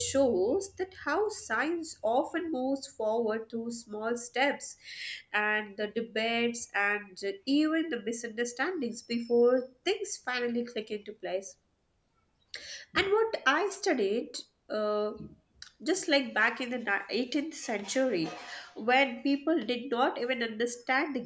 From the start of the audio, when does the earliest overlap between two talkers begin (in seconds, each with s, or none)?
none